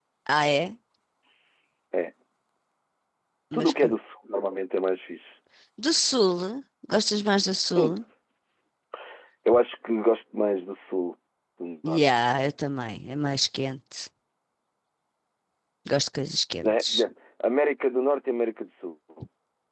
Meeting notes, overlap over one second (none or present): none